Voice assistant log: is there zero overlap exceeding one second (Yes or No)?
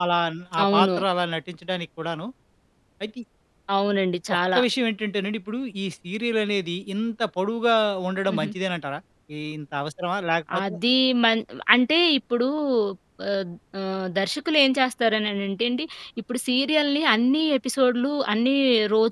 Yes